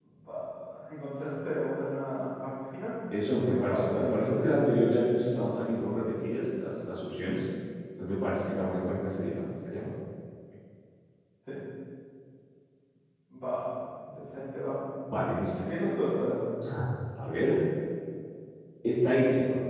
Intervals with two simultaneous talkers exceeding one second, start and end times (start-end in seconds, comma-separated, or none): 3.2-4.5